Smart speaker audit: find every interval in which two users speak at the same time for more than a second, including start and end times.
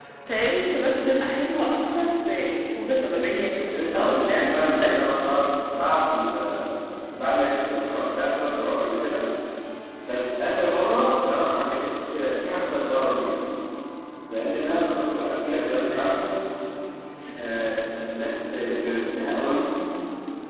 3.6-5.1

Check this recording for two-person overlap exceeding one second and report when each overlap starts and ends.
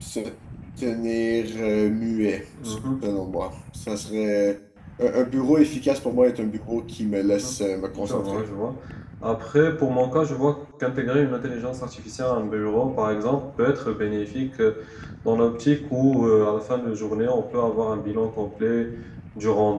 none

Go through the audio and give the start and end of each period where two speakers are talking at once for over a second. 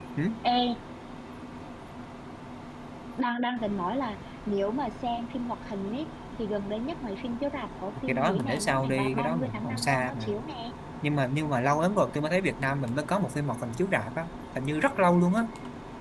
8.1-10.3

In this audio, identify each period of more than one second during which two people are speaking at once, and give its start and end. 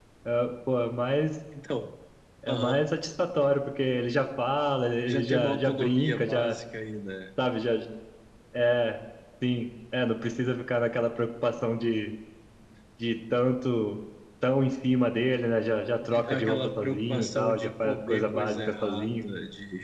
5.1-6.5, 16.1-19.2

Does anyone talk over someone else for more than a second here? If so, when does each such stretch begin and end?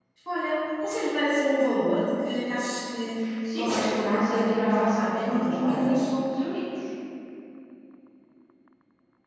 3.4-6.1

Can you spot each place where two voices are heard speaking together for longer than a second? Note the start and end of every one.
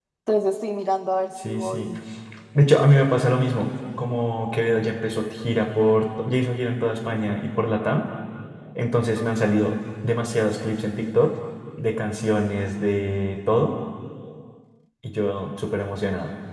none

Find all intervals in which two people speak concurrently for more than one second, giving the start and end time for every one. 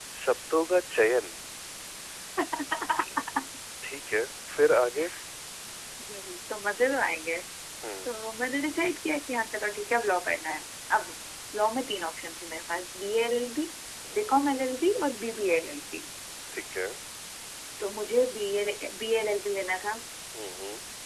none

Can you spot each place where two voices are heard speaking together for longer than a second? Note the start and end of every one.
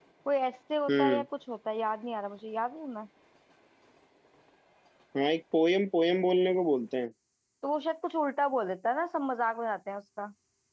none

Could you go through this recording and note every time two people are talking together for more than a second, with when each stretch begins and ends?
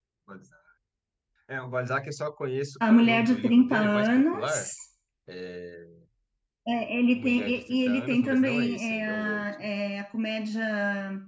2.8-4.7, 7.1-9.4

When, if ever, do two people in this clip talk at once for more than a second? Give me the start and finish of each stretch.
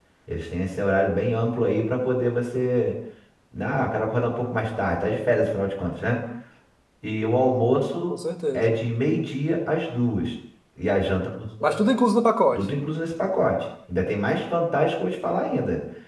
none

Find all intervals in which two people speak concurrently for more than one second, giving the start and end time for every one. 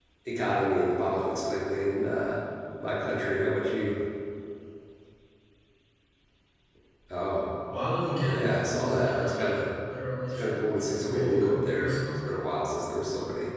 8.2-9.7, 10.3-12.2

